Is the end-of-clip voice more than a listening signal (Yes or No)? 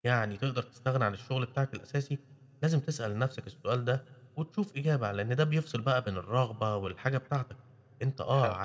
No